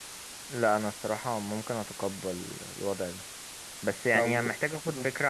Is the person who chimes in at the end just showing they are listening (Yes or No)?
Yes